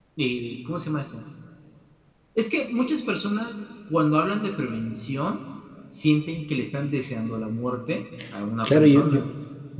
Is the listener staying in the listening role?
No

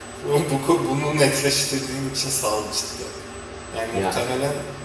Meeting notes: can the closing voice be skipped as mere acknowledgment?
Yes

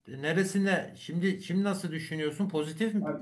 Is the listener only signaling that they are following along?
No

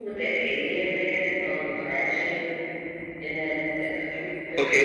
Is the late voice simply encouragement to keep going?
No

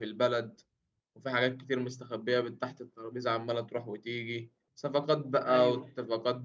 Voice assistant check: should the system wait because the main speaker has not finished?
Yes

